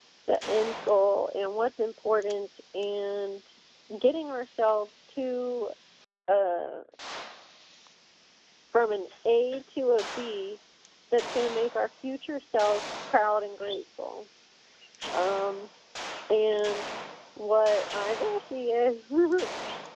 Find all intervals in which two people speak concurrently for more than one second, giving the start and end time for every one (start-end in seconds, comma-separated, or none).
none